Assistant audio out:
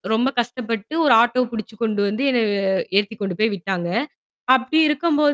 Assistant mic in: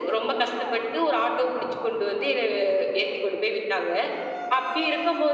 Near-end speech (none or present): none